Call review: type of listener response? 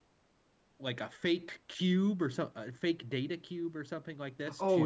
taking over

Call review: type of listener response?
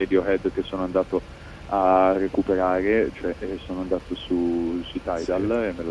listening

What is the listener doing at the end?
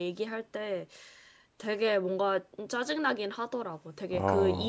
listening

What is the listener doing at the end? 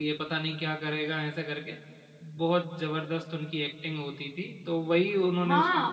taking over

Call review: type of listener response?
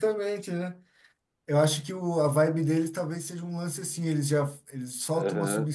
listening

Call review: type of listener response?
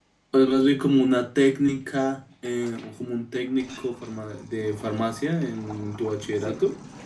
taking over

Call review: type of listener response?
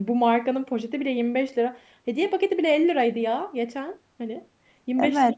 taking over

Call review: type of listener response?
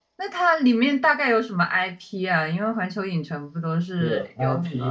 taking over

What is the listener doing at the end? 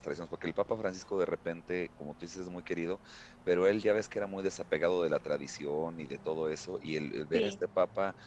listening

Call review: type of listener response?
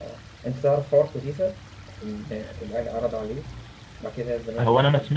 taking over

